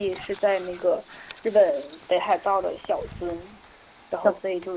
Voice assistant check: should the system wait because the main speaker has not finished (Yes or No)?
Yes